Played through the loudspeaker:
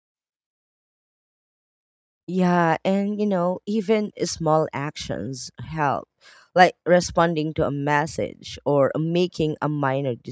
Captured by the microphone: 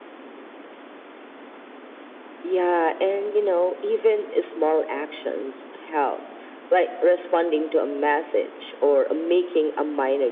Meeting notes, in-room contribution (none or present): none